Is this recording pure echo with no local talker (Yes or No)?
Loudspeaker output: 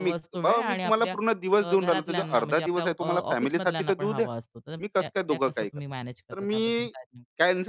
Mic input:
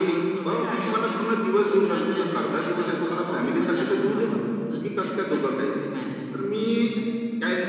Yes